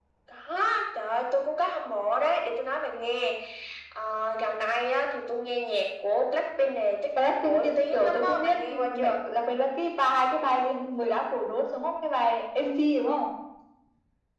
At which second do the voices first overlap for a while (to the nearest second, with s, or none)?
7 s